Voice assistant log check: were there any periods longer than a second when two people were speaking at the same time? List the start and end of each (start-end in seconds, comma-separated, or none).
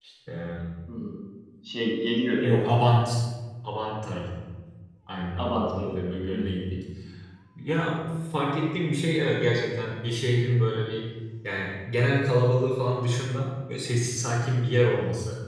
5.4-6.6